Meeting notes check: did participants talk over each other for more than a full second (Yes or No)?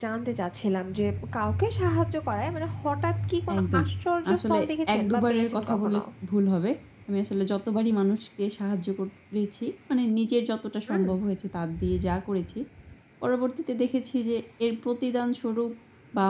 Yes